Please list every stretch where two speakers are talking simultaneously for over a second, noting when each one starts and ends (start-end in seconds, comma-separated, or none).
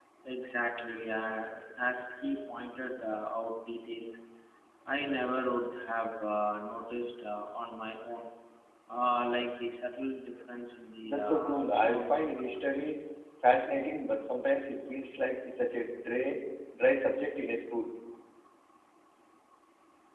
11.0-12.3